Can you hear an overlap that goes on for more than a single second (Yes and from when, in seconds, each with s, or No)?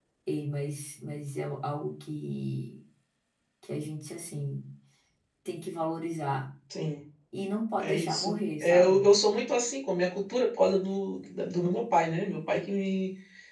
Yes, from 7.8 s